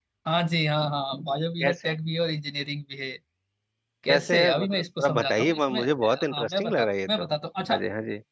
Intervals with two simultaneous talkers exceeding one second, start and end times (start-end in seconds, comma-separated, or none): 4.1-7.2